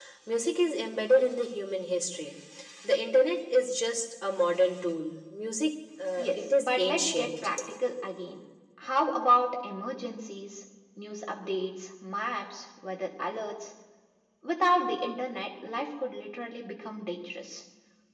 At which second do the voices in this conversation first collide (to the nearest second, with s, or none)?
6 s